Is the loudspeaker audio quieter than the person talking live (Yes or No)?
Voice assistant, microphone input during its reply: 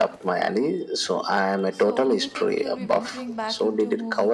No